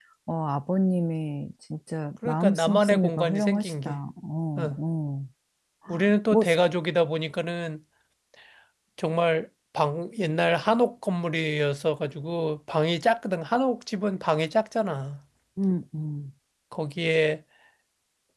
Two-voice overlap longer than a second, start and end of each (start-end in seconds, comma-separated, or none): 2.2-4.0